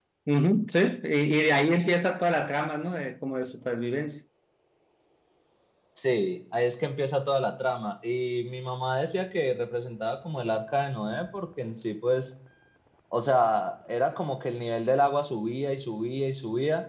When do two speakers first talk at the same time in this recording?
none

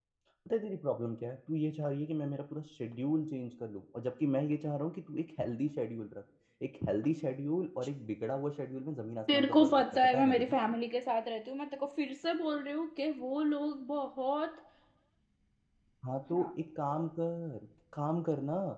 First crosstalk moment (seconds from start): 9 s

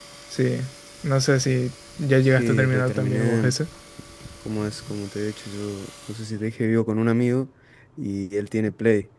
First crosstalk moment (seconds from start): 2 s

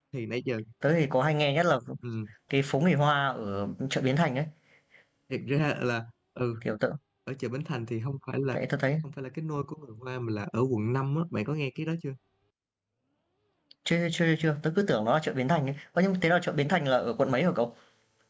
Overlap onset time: none

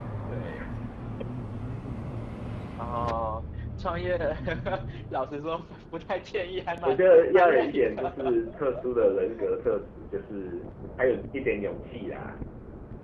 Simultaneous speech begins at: 7 s

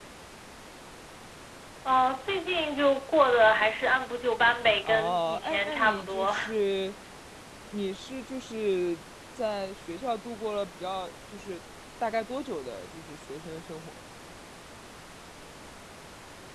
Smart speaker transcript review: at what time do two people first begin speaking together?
5 s

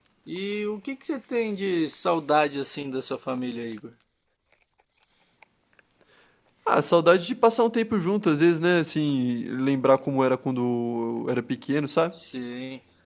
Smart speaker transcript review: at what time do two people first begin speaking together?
none

